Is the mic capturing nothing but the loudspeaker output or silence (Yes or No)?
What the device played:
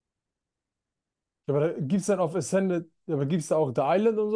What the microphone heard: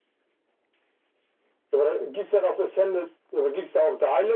Yes